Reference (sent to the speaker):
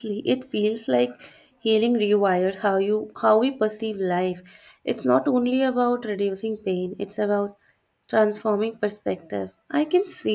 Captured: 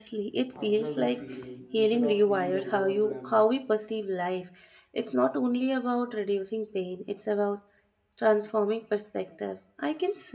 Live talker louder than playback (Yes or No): No